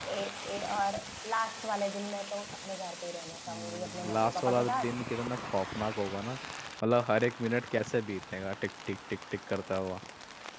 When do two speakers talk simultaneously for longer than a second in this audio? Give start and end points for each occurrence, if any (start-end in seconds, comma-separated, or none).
3.5-4.9